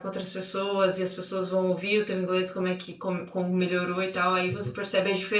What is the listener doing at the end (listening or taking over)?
listening